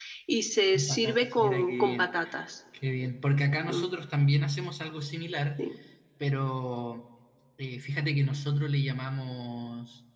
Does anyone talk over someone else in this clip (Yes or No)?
Yes